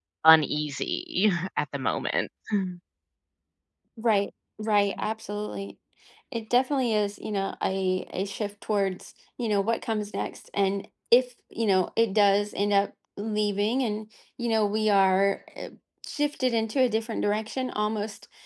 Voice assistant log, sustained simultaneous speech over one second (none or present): none